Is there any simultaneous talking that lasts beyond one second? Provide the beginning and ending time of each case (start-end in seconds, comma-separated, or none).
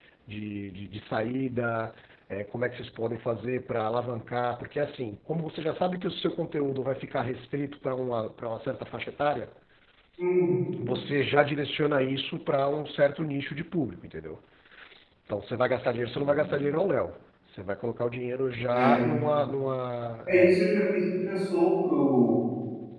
none